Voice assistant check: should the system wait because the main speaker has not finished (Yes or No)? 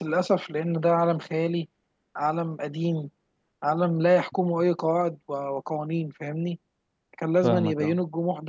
Yes